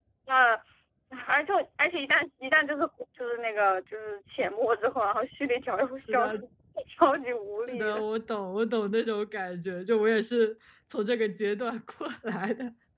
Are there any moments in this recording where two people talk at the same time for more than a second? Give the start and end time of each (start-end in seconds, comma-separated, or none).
none